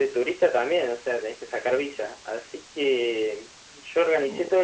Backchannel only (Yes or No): Yes